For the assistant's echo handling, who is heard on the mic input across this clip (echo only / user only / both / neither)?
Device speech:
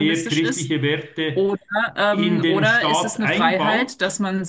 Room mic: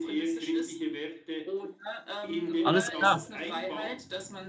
both